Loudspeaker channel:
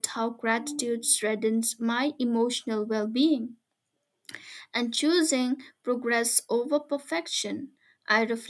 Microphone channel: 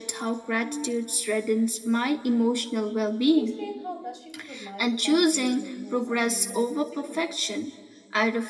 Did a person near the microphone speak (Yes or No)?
Yes